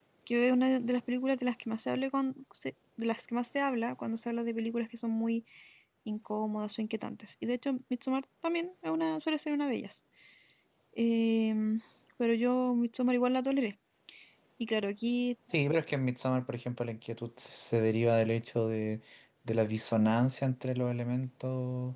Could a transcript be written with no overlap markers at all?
Yes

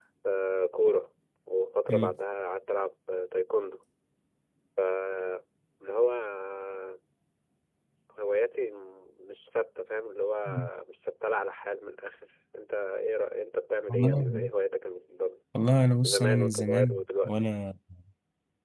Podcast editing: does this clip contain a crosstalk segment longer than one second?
Yes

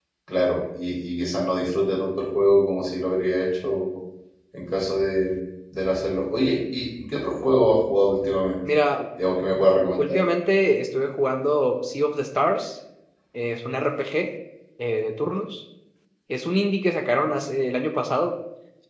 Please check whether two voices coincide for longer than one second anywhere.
No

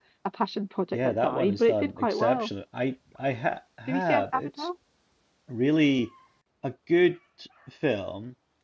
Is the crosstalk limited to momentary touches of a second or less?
No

